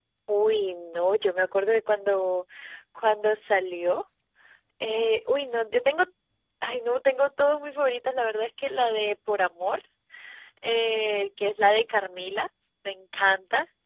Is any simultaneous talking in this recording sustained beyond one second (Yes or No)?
No